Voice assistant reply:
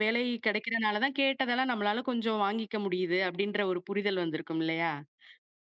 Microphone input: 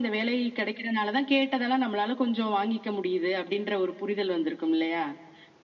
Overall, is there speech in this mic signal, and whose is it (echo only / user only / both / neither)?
echo only